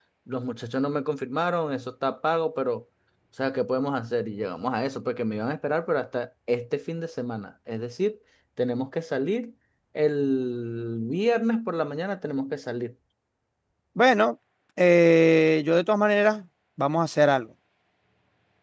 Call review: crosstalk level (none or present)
none